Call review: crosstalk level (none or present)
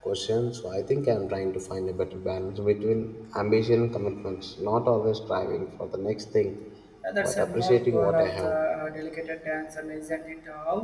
present